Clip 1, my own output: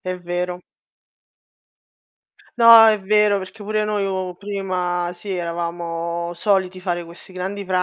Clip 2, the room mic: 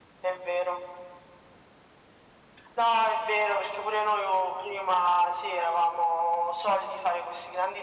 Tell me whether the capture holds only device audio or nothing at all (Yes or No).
Yes